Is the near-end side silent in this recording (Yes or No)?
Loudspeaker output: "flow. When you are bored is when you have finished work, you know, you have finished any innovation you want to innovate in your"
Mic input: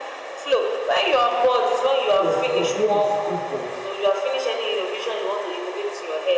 No